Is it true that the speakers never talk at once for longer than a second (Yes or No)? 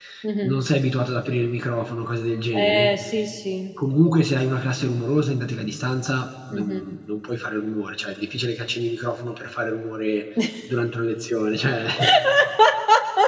Yes